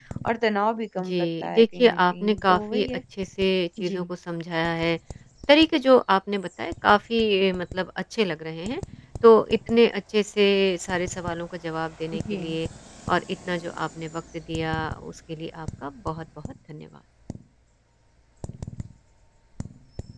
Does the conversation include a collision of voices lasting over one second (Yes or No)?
Yes